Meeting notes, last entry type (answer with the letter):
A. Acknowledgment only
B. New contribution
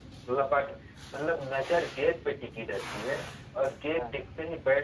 A